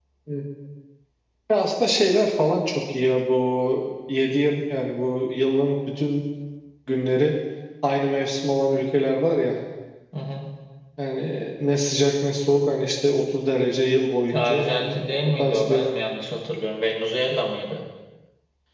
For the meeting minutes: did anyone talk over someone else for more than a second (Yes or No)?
Yes